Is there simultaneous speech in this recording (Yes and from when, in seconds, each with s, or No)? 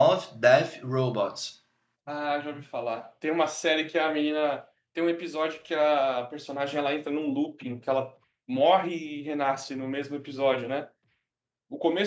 No